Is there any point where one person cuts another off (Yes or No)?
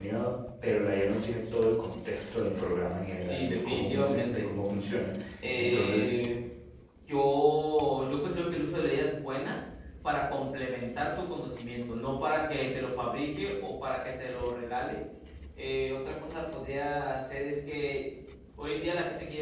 Yes